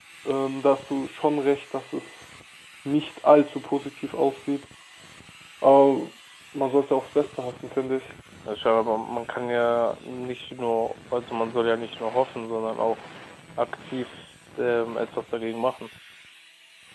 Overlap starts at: none

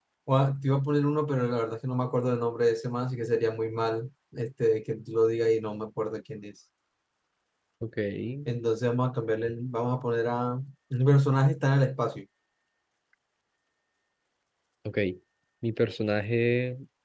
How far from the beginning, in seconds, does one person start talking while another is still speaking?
none

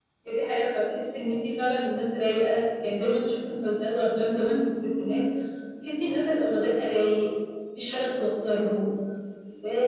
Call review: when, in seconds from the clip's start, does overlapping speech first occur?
none

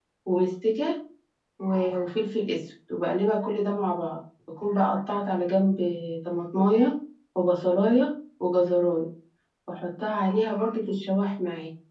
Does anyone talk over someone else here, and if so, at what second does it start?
none

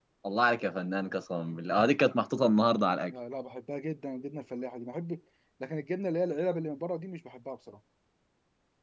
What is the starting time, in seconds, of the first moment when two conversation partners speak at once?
none

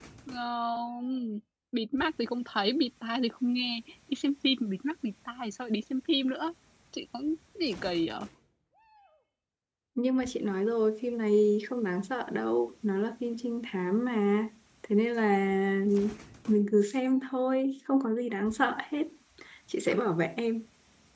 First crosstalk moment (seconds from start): none

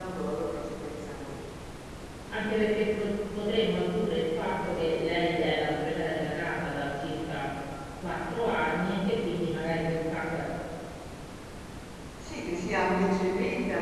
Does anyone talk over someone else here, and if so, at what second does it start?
none

